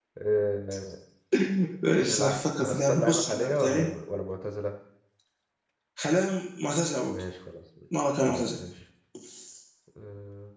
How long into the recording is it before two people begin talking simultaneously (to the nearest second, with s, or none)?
2 s